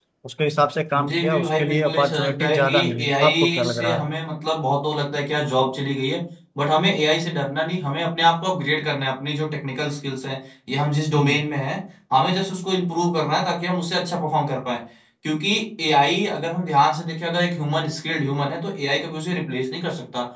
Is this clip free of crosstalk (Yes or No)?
No